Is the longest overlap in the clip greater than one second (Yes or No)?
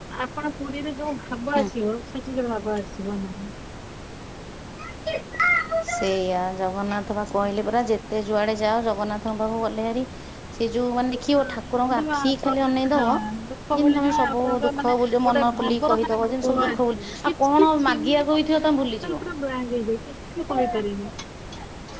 Yes